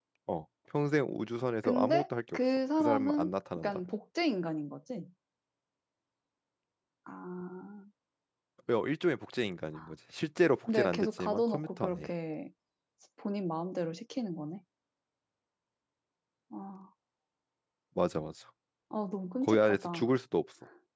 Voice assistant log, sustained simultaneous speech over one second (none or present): present